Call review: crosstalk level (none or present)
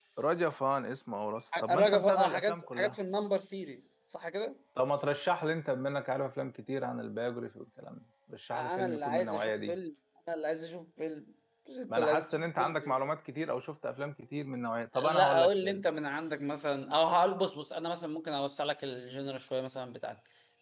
present